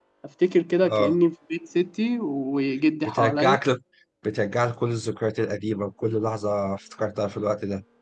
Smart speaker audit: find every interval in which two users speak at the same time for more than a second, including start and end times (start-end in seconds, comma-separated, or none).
none